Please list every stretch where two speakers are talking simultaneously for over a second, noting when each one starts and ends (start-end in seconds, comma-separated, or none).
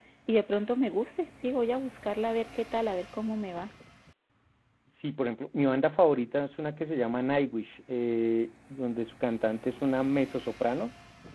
none